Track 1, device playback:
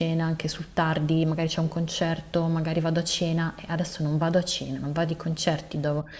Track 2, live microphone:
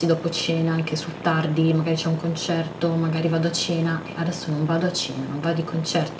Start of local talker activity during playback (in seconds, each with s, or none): none